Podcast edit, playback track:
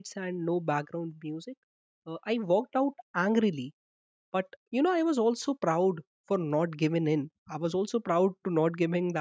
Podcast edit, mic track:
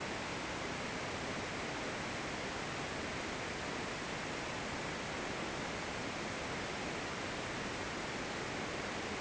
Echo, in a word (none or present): none